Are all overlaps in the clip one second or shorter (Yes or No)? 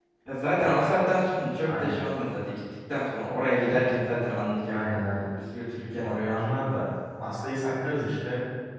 Yes